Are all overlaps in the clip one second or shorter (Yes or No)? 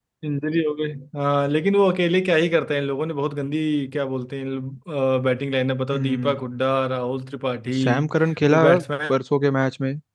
Yes